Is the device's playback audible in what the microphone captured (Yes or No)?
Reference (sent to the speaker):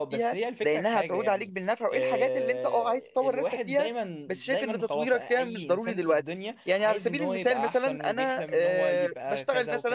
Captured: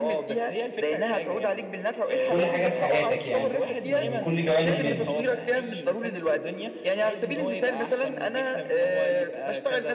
Yes